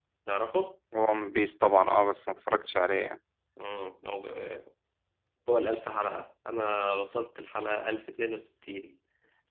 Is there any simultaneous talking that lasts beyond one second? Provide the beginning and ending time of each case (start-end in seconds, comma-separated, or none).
none